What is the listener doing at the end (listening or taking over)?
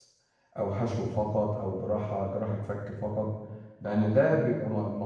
listening